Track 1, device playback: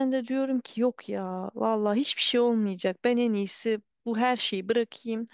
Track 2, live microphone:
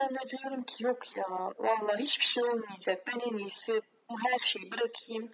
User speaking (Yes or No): No